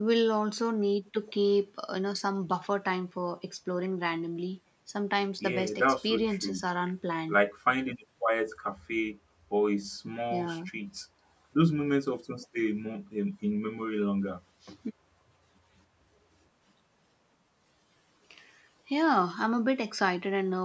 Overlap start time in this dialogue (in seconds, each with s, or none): 5.4 s